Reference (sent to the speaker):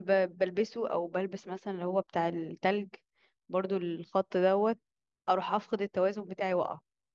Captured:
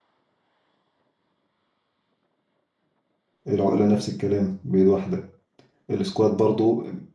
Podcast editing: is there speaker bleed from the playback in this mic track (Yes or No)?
No